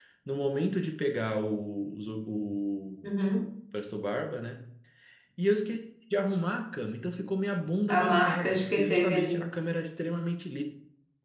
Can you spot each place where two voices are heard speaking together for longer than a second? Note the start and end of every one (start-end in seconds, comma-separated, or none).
8.0-9.4